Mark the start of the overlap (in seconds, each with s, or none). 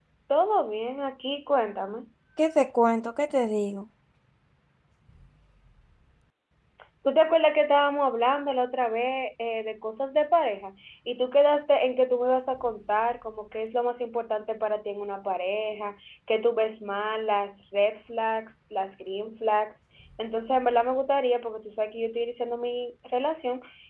none